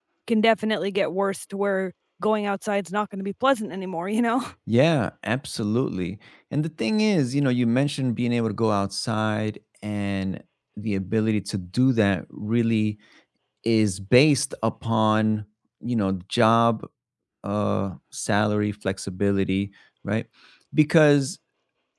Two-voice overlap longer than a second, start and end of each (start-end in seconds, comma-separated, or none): none